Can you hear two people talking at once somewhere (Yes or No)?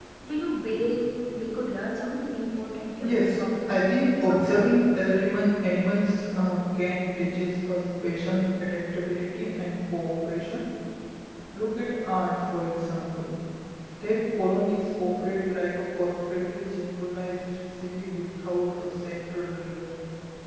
Yes